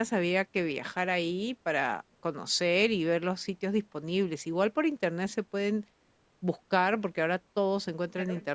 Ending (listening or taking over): listening